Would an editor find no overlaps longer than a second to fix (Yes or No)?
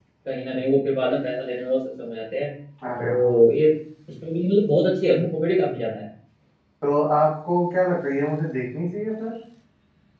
Yes